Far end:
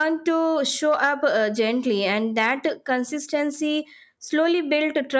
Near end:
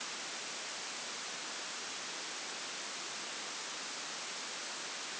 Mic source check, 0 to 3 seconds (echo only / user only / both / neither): neither